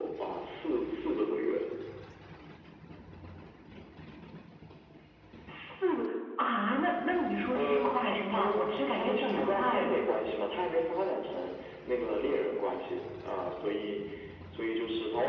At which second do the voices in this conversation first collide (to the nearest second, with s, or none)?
8 s